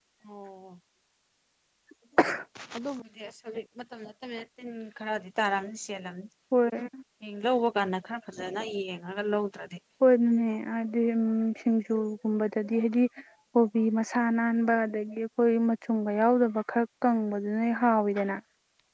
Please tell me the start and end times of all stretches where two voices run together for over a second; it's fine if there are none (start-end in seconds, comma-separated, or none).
none